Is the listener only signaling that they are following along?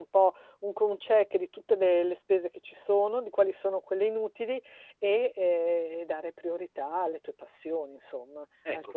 No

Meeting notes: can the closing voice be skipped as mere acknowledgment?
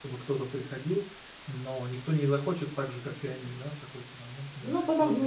No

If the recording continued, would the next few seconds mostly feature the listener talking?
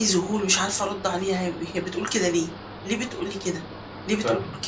No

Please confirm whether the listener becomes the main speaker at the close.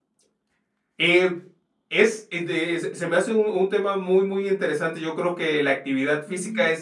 No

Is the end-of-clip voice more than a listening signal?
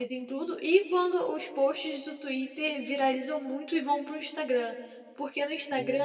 No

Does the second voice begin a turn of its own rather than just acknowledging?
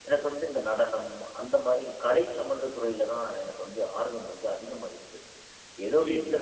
No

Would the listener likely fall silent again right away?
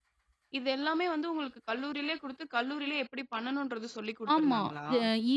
No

